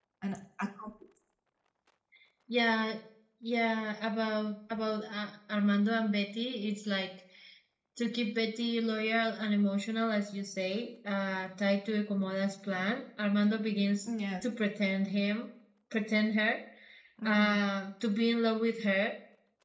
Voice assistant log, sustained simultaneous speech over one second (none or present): none